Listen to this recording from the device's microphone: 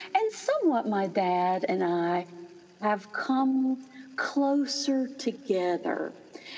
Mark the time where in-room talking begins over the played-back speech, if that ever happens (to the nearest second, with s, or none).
none